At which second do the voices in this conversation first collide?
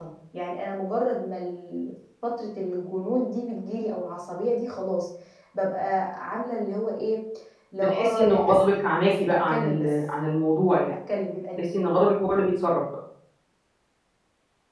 7.8 s

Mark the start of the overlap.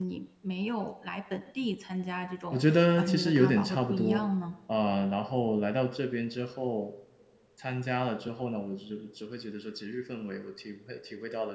2.5 s

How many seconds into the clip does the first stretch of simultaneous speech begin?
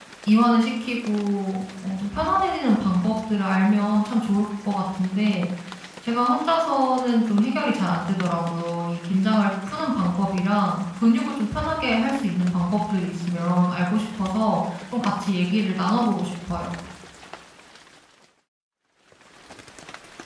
none

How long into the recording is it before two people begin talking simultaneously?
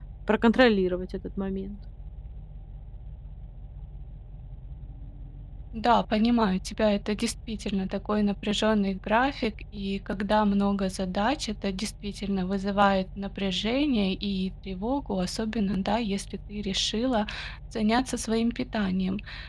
none

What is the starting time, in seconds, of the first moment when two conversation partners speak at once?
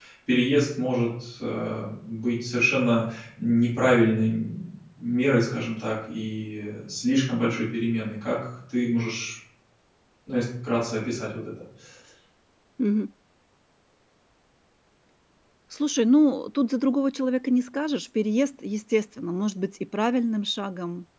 none

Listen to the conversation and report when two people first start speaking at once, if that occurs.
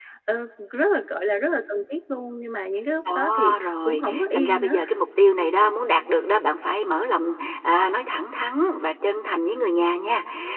3.0 s

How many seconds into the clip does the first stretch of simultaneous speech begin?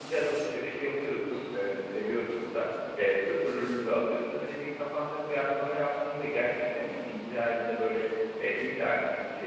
none

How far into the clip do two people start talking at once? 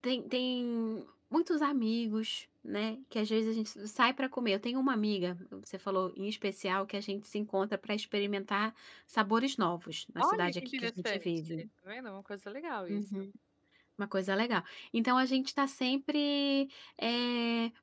10.2 s

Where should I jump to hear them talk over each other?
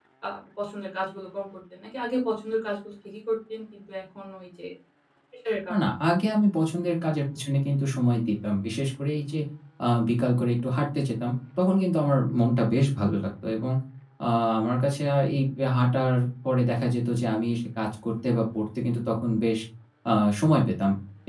none

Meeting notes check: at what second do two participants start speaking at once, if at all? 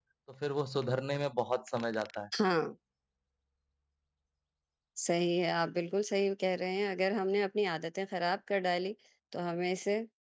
none

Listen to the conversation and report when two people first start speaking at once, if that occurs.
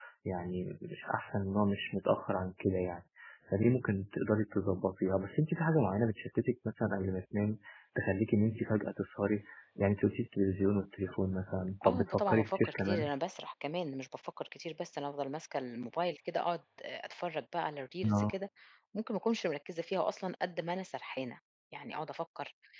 11.8 s

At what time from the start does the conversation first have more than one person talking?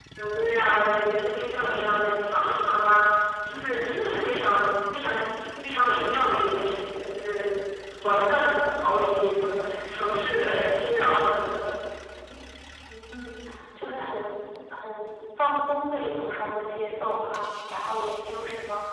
none

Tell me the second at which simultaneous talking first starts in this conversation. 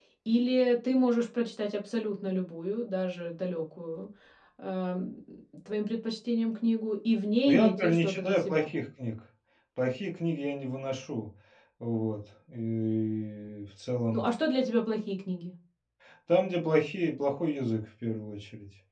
7.5 s

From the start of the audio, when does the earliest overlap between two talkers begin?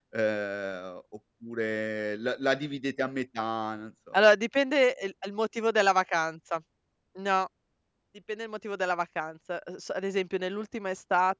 none

